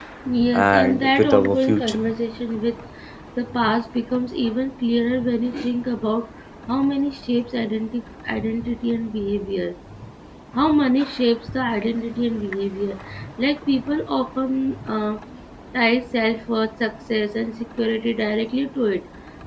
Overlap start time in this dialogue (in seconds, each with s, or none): 0.5 s